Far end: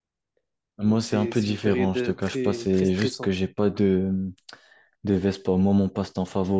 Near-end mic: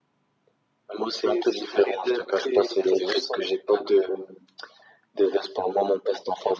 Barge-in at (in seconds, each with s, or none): none